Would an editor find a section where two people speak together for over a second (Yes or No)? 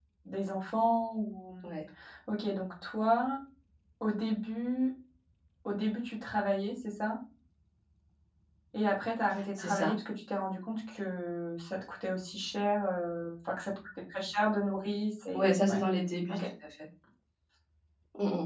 No